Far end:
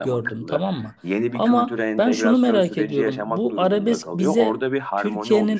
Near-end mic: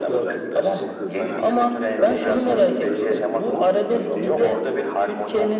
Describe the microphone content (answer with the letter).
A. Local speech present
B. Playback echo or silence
A